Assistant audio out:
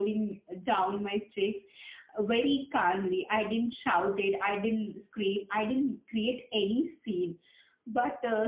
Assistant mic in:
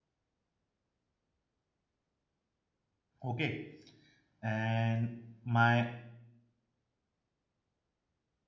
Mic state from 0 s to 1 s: neither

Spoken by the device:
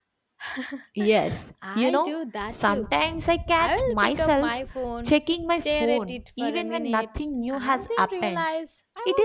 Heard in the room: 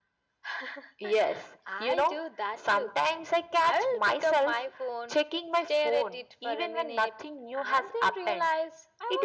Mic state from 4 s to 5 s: echo only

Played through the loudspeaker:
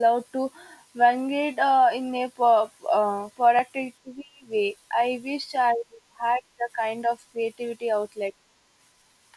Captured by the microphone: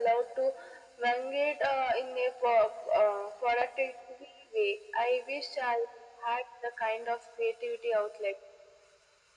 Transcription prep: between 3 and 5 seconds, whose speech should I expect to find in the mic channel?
echo only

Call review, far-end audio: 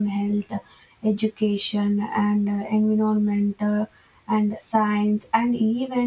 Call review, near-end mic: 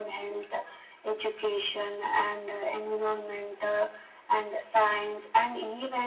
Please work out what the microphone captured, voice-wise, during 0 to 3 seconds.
echo only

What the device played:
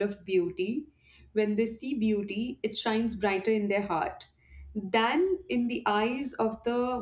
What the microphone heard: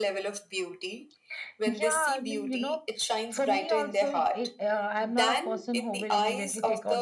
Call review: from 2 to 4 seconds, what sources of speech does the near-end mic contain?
both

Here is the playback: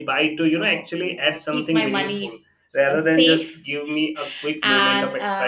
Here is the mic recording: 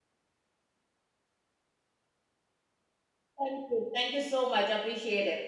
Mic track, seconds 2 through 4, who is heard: user only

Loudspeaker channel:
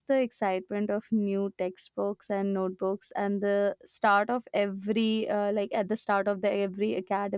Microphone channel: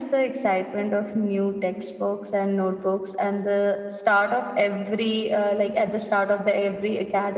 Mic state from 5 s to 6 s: echo only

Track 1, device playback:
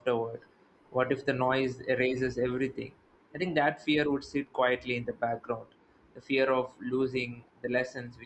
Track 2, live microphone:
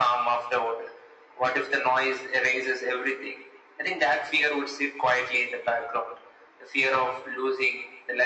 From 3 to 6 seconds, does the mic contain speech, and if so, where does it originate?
echo only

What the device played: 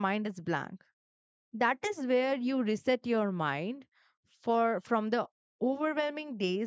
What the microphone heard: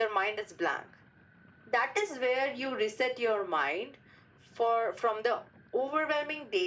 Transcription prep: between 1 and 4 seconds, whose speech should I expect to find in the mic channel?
echo only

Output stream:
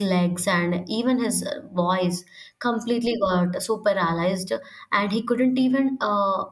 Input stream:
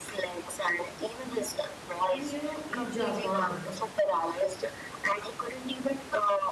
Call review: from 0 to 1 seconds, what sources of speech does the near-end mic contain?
echo only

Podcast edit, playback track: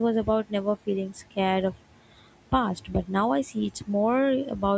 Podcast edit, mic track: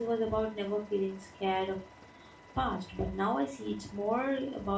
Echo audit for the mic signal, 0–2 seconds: echo only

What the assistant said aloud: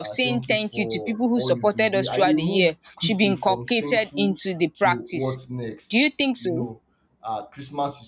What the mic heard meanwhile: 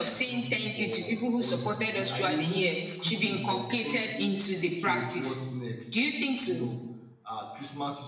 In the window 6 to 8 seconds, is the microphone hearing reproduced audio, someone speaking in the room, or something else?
echo only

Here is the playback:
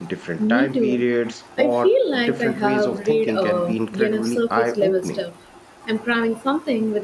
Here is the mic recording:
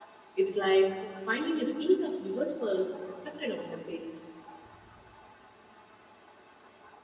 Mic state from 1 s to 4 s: user only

